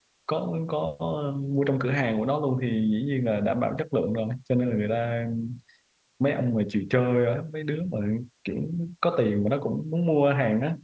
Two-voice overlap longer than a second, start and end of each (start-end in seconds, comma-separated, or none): none